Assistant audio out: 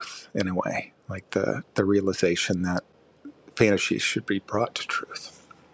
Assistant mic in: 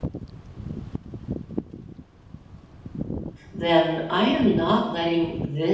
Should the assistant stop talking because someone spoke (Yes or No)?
Yes